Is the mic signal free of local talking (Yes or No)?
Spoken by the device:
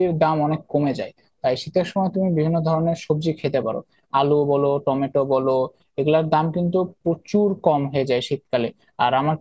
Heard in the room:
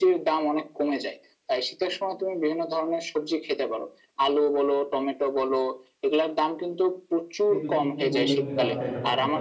No